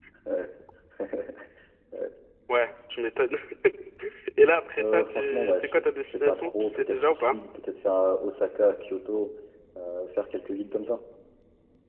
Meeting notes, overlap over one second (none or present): present